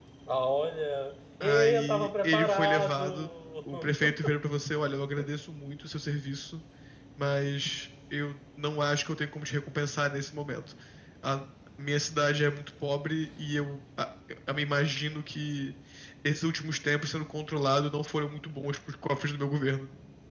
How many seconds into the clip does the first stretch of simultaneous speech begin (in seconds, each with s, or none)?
1.4 s